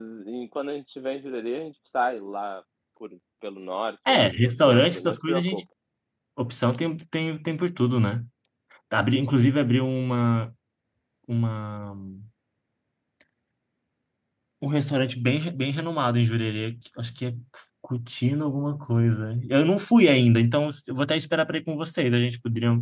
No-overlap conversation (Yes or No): No